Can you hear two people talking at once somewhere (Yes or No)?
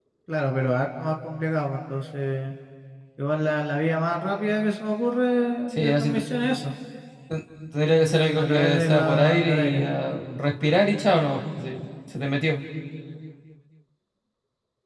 Yes